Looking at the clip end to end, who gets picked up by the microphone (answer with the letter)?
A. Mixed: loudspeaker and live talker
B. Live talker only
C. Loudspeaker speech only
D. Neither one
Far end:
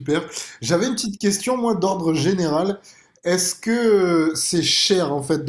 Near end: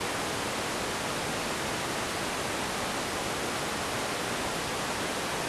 D